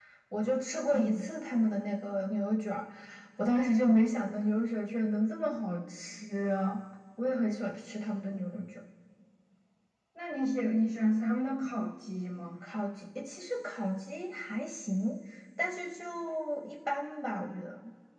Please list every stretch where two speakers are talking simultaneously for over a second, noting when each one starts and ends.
none

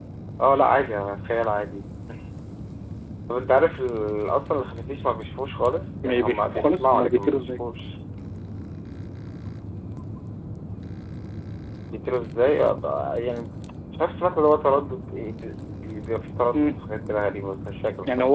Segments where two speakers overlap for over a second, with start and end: 6.0-7.4

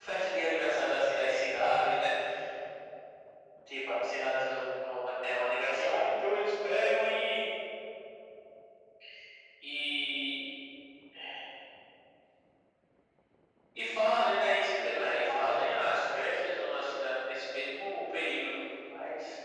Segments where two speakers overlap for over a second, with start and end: 15.1-16.5

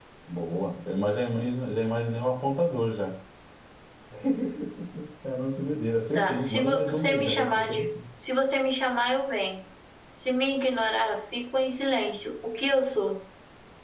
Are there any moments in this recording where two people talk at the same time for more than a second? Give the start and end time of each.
6.1-7.8

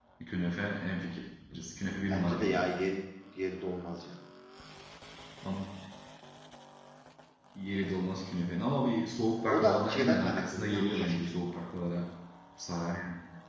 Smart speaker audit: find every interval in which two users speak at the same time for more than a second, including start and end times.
9.5-11.3

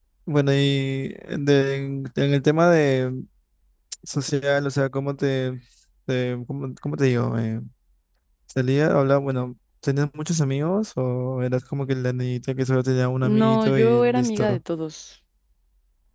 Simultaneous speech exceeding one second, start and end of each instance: 13.2-14.6

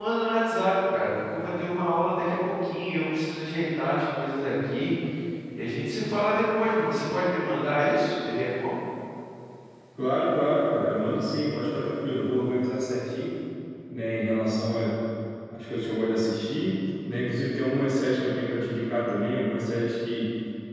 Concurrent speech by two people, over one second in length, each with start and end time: none

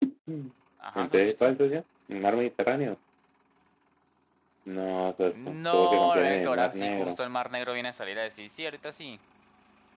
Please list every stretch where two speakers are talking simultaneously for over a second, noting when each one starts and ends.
5.3-7.2

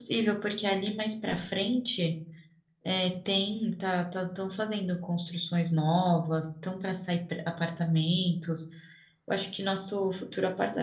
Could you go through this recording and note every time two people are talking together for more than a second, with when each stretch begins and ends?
none

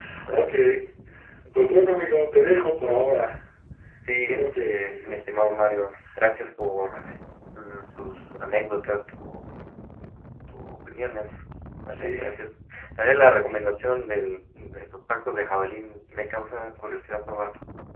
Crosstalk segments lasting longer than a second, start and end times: 4.1-5.5

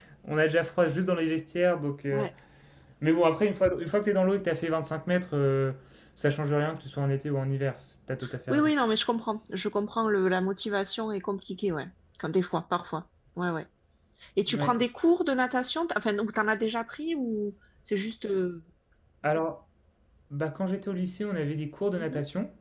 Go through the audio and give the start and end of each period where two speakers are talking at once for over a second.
none

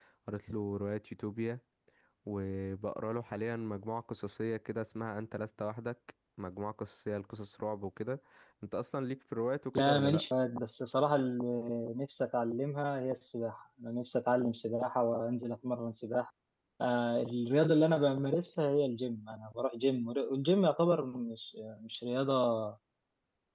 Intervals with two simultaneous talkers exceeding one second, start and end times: none

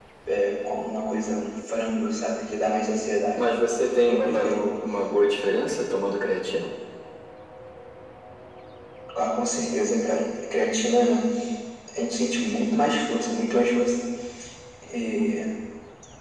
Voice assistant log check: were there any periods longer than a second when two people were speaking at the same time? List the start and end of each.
none

